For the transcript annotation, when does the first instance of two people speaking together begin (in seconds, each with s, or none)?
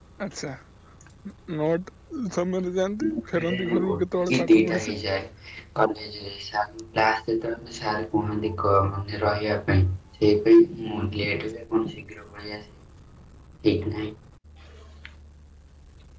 3.1 s